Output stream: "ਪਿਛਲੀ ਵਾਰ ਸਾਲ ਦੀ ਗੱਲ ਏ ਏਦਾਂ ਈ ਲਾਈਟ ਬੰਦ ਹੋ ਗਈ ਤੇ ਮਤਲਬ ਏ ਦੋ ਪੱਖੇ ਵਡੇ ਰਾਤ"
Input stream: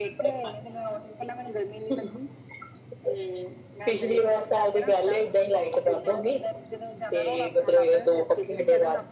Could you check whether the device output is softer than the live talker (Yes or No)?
No